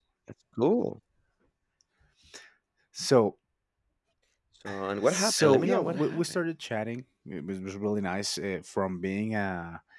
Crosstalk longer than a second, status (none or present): present